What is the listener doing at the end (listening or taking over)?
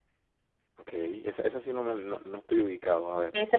taking over